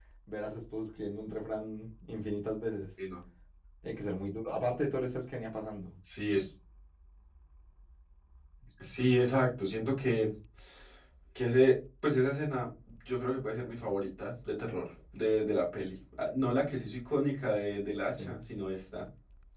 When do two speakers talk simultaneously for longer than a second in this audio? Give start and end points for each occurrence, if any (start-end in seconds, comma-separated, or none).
none